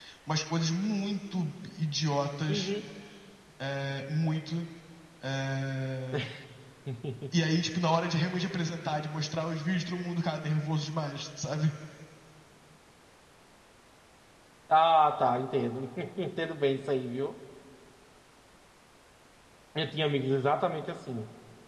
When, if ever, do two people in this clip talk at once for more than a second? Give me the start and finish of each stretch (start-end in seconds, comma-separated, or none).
none